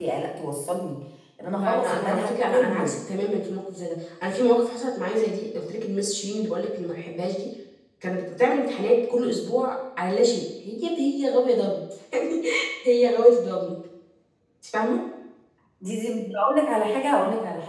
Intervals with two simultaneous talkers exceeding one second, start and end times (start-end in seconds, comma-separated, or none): 1.6-2.9